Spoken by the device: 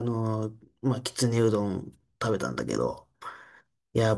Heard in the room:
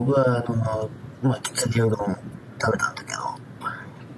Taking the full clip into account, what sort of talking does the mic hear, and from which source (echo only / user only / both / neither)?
echo only